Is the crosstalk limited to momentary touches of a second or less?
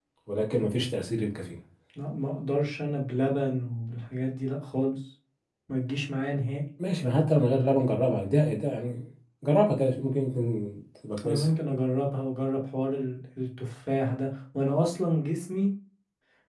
Yes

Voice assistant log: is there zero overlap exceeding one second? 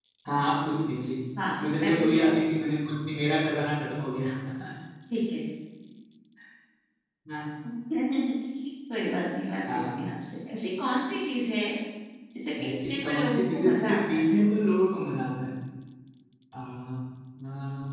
No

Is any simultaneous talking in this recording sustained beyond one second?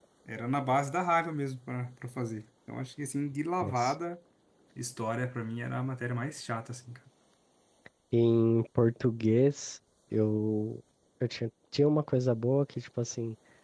No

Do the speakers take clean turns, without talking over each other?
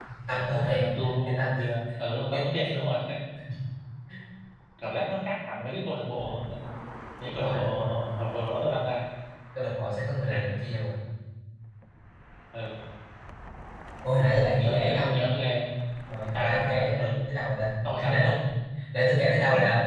No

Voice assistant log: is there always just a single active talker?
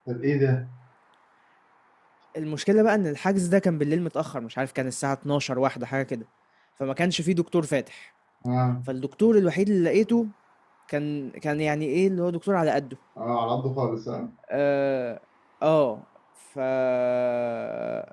Yes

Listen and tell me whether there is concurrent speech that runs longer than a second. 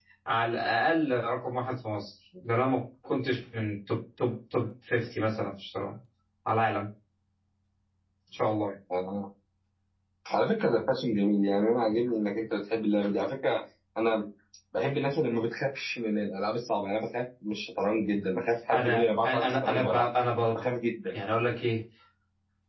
Yes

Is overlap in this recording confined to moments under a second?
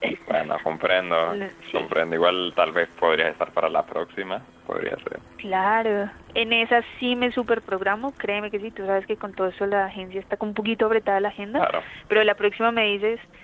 Yes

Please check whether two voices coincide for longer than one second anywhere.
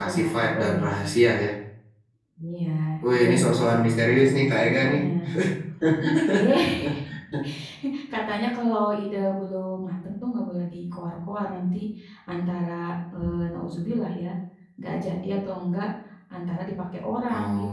Yes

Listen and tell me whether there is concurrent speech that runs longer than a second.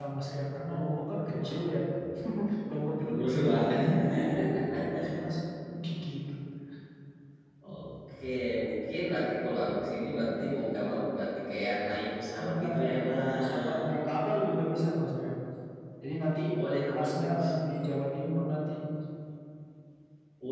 Yes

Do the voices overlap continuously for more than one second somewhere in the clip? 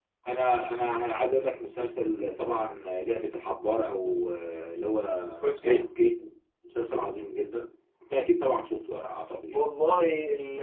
No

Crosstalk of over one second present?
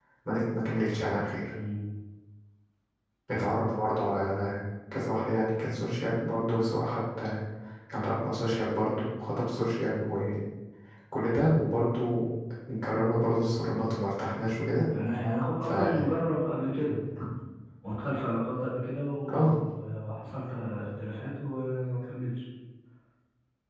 No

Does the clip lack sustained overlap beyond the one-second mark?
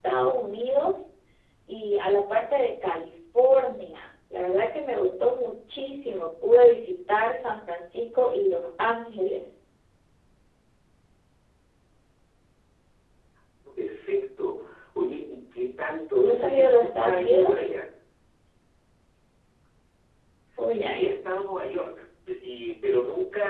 No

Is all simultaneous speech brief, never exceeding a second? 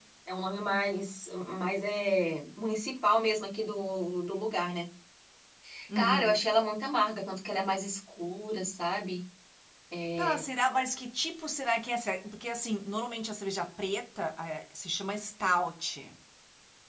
Yes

